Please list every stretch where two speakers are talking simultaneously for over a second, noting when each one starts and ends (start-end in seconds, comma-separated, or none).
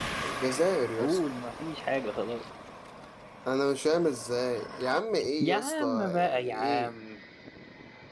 5.4-6.9